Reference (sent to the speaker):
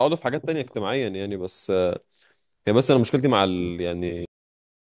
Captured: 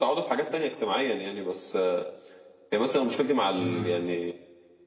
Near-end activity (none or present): present